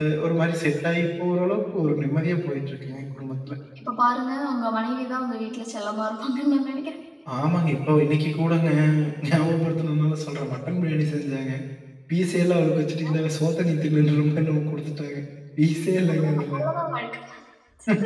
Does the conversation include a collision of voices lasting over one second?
No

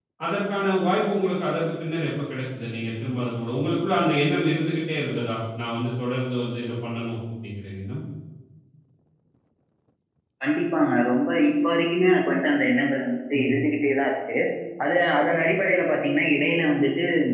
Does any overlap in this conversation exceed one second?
No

